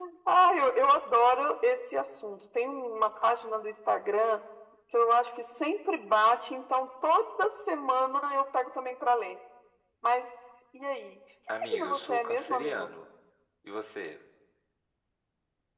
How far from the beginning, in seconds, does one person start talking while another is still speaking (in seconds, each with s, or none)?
11.5 s